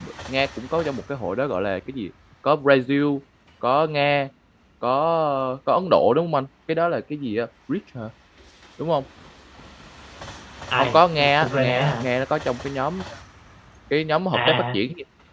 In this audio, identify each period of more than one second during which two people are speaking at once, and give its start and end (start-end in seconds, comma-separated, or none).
10.8-12.1